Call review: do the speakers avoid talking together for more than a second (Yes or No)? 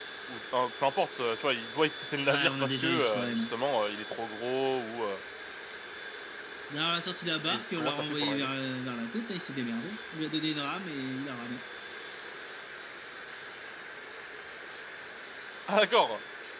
No